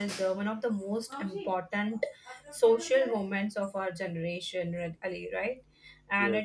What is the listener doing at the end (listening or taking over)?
listening